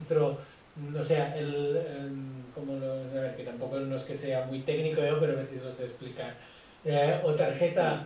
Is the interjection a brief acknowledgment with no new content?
Yes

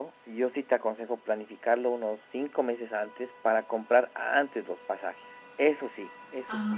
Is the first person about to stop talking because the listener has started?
Yes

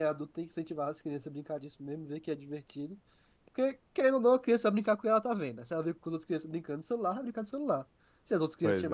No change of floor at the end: Yes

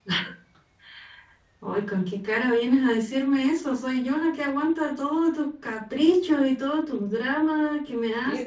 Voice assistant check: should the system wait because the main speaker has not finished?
No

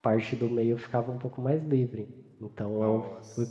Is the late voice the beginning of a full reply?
No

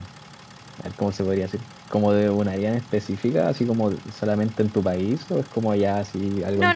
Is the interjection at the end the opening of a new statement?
Yes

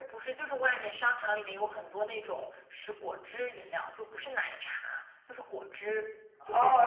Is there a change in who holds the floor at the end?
Yes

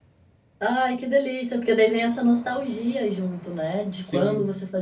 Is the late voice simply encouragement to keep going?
Yes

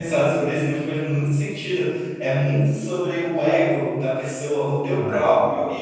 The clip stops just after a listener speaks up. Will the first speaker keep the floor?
Yes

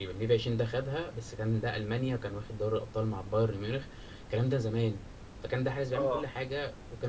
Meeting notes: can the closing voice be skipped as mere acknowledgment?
Yes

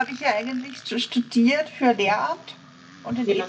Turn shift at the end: No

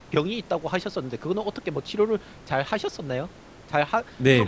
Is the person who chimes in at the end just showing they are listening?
No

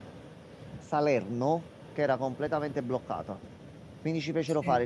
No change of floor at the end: Yes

